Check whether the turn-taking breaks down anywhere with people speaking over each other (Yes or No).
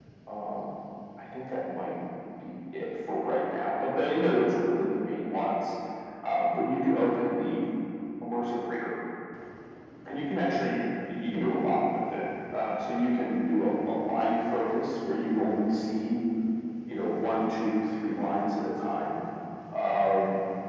No